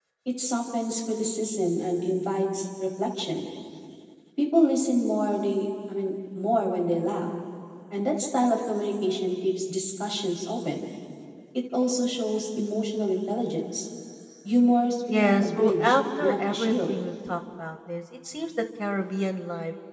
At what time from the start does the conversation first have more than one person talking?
15.1 s

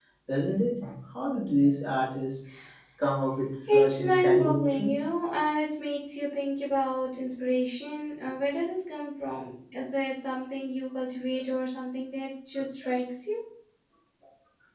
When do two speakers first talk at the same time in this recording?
3.7 s

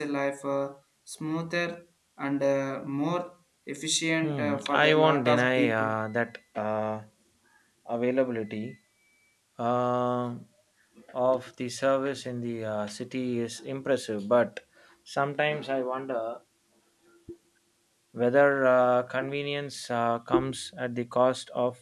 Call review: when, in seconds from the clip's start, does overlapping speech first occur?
4.2 s

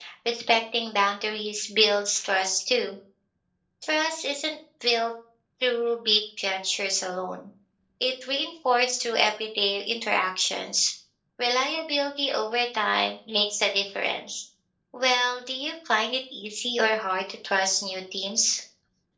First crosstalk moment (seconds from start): none

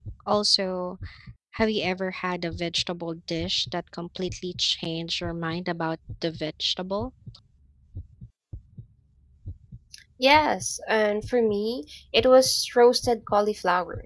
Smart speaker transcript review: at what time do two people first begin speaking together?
none

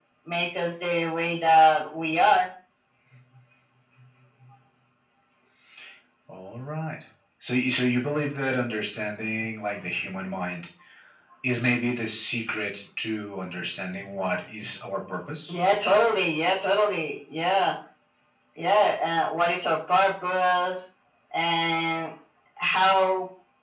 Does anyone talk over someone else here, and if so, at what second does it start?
none

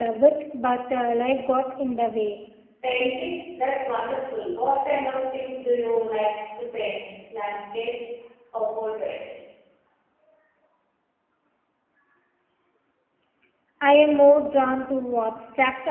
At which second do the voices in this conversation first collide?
none

